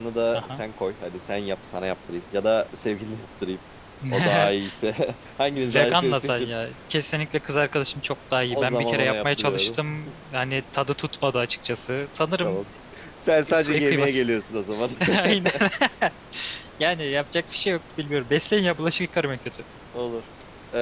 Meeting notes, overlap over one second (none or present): present